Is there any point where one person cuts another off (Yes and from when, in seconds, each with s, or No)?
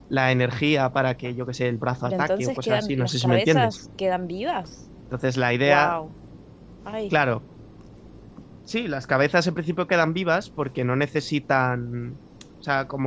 Yes, from 2.0 s